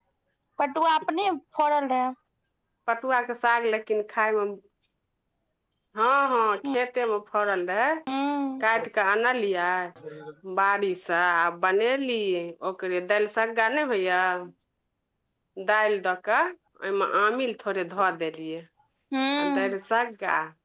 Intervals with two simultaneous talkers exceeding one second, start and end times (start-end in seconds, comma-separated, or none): none